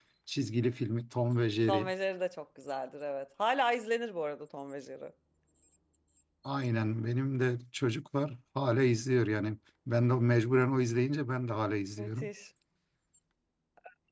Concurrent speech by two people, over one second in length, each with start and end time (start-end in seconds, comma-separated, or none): none